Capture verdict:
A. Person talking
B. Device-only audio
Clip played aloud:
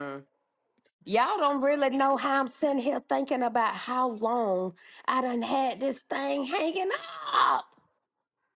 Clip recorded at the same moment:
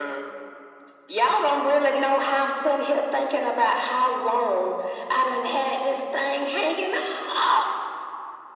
B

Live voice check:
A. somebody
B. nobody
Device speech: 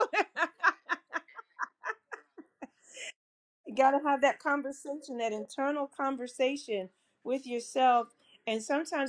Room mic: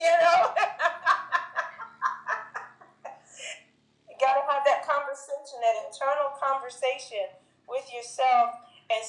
B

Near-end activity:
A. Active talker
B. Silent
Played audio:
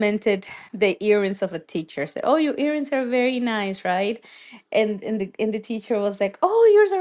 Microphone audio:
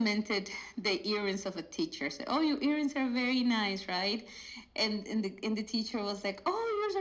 B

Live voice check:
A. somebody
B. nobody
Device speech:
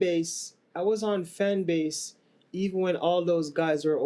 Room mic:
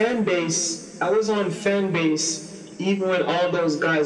B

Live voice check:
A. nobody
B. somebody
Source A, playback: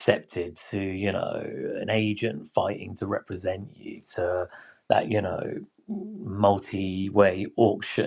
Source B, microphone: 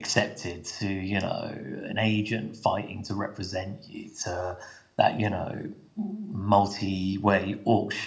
A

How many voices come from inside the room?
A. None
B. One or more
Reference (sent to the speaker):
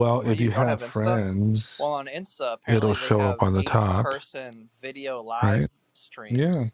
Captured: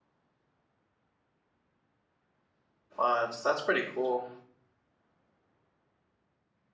B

